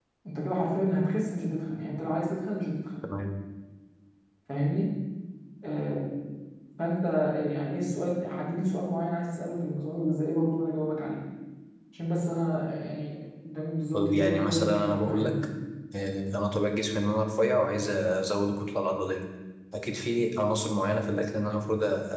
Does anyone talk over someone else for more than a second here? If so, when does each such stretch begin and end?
13.9-15.3

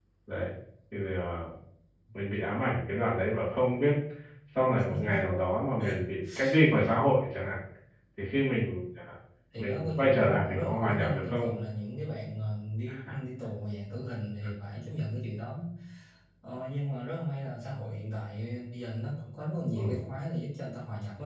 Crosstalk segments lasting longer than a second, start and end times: 9.6-11.5

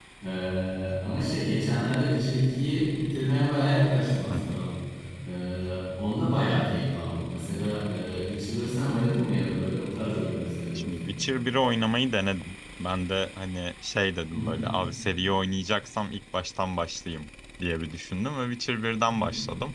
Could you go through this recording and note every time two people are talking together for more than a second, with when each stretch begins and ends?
none

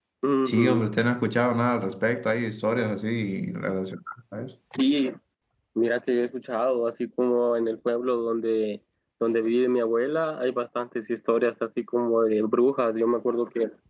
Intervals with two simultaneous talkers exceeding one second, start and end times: none

